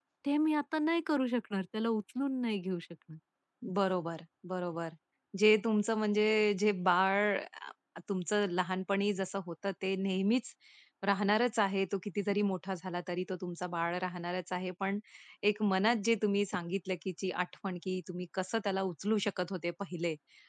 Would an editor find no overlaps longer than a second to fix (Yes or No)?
Yes